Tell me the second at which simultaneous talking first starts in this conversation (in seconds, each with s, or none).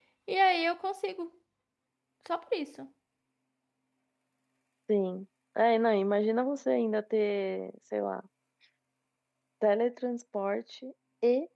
none